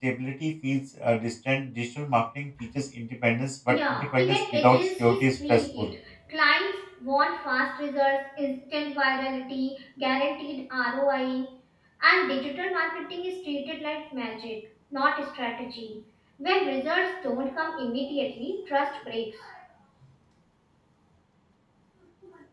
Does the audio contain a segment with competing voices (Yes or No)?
Yes